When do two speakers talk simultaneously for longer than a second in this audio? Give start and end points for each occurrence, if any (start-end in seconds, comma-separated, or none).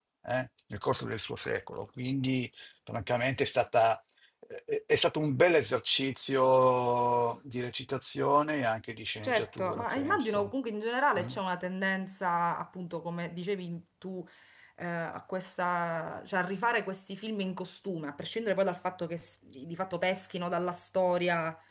9.2-10.5